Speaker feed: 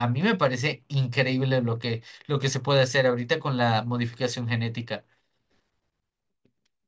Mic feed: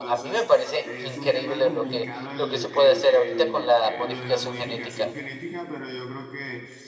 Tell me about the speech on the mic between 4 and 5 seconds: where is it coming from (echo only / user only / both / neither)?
both